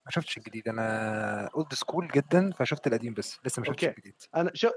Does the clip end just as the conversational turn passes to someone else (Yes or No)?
Yes